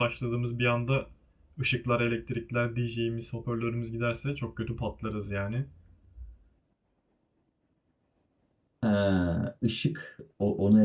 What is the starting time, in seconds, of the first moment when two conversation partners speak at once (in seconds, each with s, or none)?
none